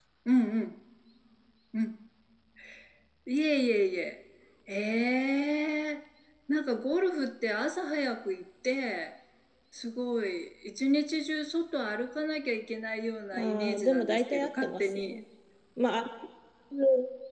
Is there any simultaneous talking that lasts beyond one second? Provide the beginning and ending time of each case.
13.3-15.2

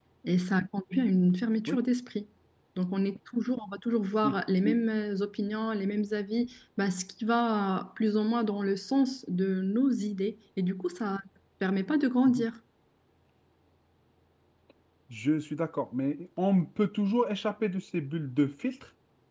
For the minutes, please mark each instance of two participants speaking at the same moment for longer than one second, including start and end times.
none

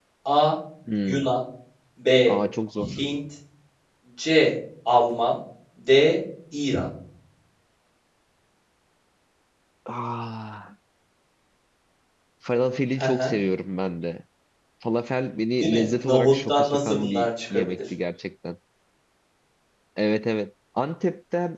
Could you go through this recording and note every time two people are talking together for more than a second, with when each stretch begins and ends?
15.6-17.8

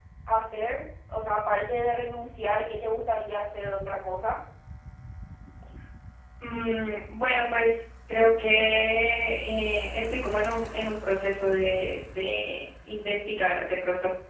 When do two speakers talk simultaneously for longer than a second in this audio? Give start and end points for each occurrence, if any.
none

